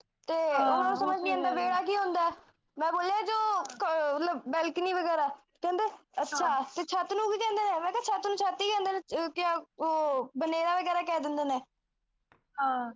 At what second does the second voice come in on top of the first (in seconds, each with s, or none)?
0.5 s